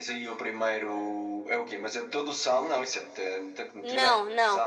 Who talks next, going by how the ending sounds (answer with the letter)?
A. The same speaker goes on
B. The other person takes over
B